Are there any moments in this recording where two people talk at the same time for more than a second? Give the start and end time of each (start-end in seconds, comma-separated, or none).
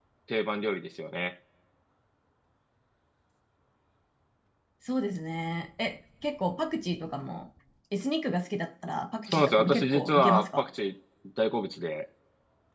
9.3-10.7